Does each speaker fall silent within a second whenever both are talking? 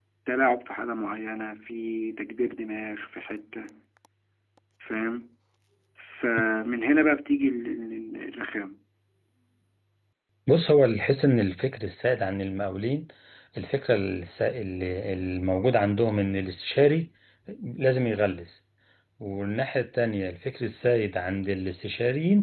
Yes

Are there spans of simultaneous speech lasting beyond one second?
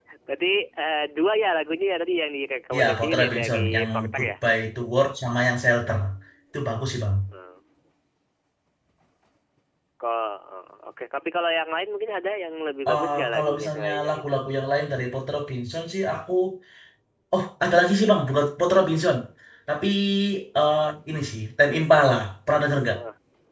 Yes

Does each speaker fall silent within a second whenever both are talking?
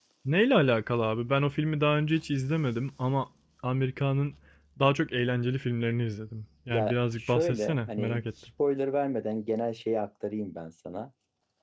No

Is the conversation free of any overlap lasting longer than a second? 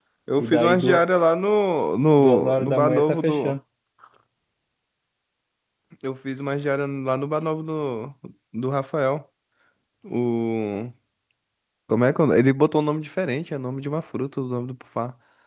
No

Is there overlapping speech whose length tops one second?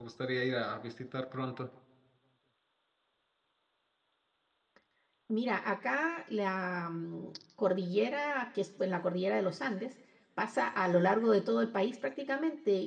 No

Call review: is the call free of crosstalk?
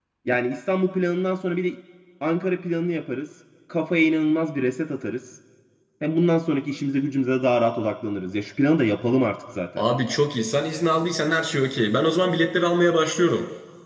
Yes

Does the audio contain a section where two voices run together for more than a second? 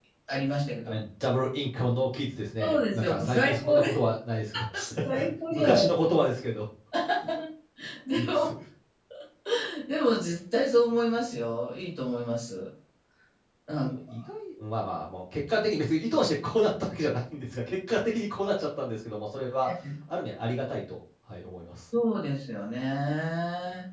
Yes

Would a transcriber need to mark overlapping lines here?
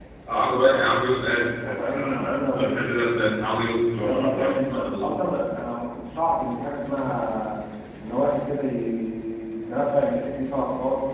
Yes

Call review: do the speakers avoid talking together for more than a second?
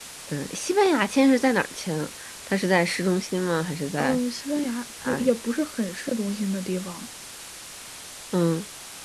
Yes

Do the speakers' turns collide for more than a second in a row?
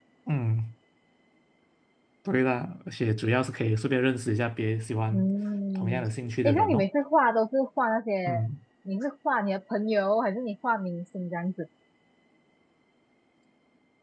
No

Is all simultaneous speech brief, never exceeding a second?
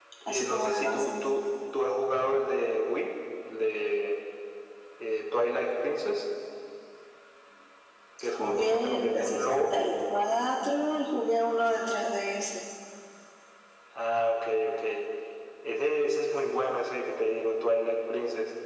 No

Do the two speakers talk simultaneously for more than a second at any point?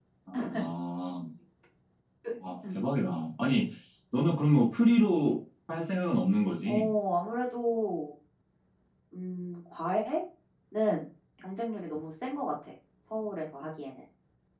No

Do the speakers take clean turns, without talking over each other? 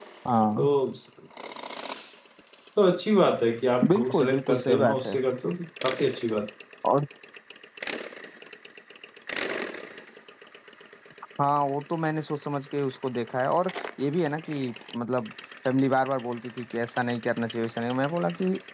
No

